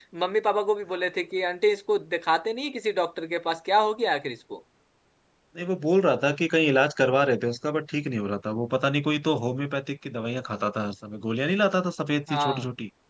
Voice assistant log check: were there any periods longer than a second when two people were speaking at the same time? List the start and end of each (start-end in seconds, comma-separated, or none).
none